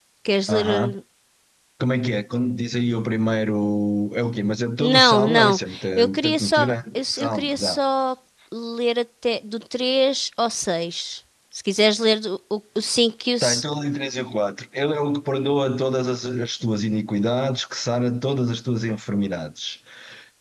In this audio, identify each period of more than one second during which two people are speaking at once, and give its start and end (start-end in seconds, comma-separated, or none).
4.8-7.8